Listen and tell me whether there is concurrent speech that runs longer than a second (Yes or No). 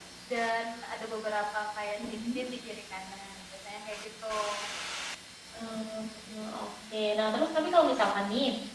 No